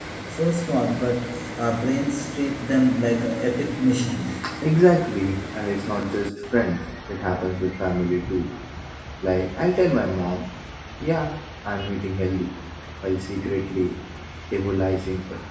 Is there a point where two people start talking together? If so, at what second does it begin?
none

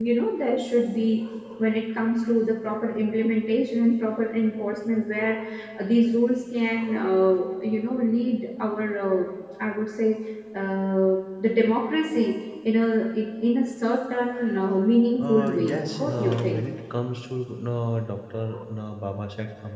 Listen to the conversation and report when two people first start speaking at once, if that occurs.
15 s

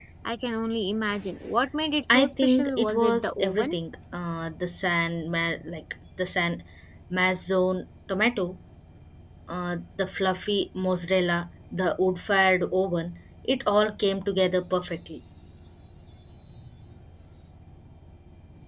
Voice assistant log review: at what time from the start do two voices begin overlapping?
2 s

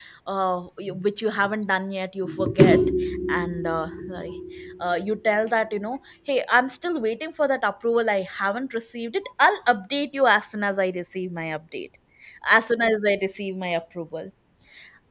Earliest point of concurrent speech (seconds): none

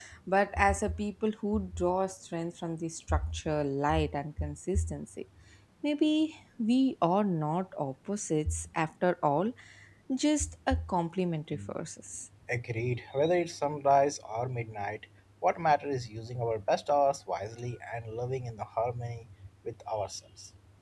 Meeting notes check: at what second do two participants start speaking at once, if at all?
none

